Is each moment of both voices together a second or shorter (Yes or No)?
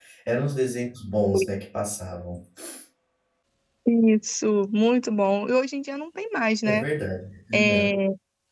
Yes